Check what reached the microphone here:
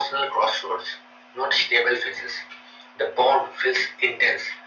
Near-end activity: none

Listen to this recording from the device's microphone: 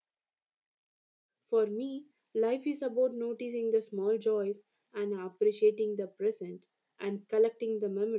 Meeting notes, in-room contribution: present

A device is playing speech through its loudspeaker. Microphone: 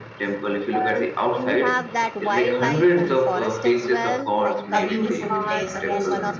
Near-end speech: present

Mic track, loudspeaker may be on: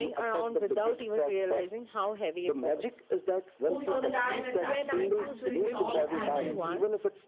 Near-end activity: present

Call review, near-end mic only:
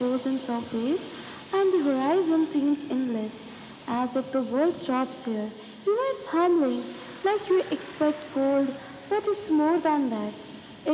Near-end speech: none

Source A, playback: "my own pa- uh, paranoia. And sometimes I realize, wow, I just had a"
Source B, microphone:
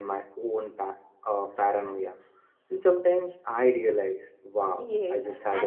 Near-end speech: present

